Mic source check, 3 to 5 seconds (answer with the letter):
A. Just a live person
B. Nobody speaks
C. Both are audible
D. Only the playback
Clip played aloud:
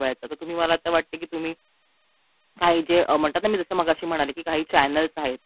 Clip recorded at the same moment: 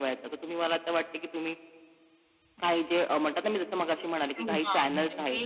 C